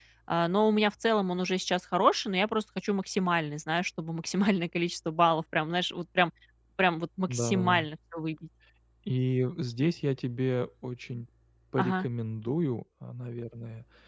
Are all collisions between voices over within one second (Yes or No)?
Yes